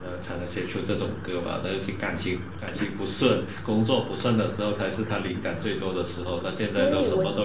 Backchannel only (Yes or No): No